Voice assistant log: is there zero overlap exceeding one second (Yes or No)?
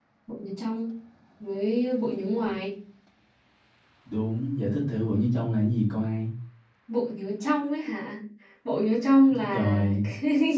Yes